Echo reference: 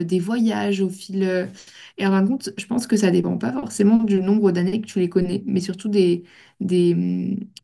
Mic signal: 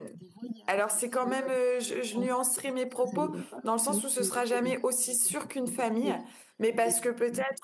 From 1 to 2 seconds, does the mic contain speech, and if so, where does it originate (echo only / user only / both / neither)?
both